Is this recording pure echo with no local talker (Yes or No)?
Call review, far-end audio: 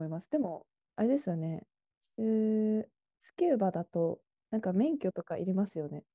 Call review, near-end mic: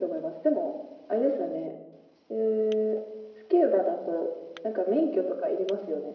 Yes